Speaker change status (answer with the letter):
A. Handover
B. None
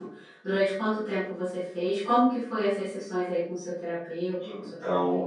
A